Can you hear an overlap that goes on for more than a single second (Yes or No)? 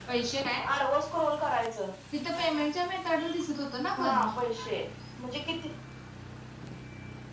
No